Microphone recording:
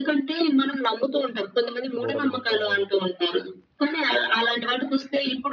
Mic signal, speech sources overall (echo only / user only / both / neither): both